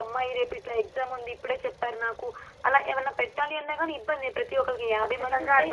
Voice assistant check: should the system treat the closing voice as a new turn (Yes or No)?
Yes